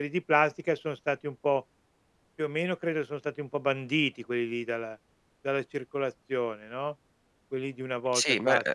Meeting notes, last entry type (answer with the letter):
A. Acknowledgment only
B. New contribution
B